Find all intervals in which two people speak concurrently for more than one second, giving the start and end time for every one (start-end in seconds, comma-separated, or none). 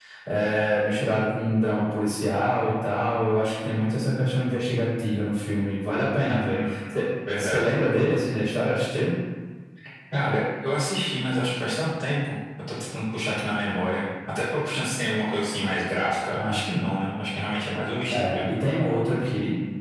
none